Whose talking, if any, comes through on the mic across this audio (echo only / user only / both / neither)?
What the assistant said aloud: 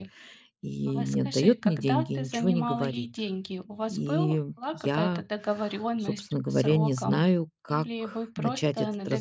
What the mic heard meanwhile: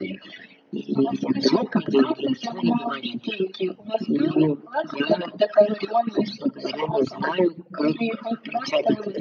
echo only